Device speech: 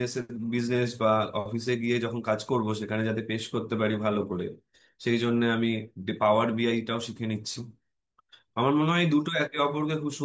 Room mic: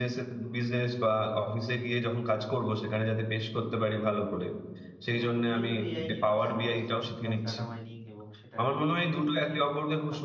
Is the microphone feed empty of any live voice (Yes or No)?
No